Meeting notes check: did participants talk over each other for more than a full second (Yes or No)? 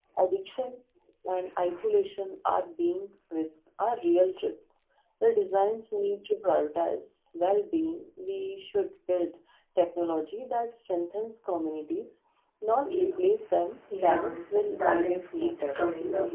Yes